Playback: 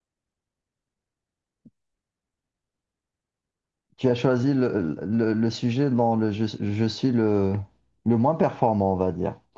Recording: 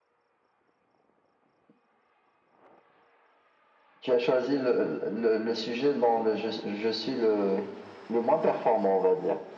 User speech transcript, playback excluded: none

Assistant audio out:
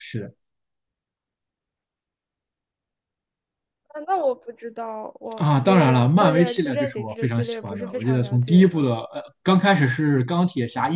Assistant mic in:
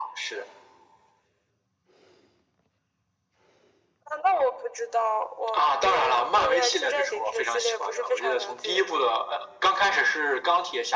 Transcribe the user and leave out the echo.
none

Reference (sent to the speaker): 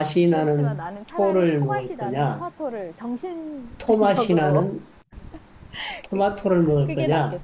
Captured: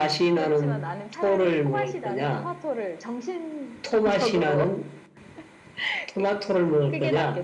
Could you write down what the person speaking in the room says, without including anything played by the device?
none

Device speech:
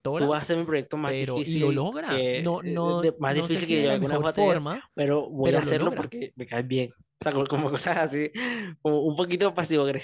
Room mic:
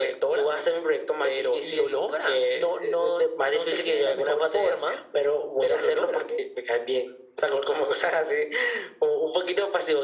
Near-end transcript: none

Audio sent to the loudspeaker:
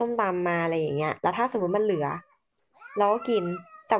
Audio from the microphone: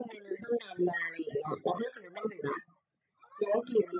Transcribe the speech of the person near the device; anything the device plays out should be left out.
none

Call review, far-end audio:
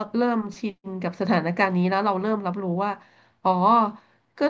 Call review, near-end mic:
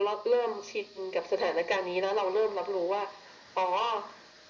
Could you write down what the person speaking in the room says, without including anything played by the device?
none

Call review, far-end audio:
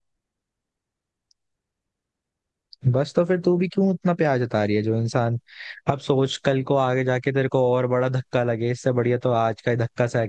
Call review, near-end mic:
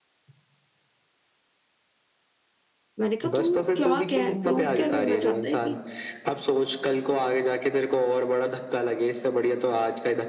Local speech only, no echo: मैंने कहा तू क्या कह प्रूफ क्या करना चाहता है कि

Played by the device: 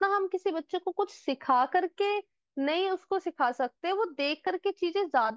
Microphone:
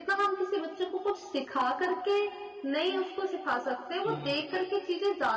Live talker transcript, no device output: जी

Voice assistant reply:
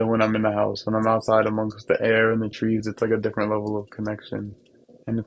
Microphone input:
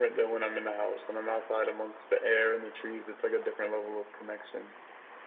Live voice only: none

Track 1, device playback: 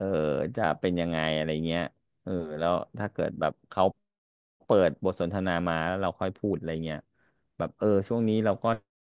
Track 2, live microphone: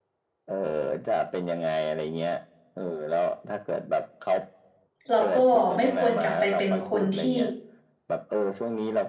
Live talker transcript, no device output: เราก็ไม่ควรกลับไปเป็นคนที่

